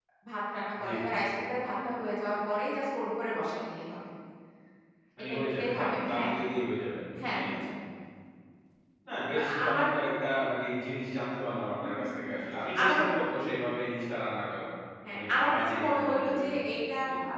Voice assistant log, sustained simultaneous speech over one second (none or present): present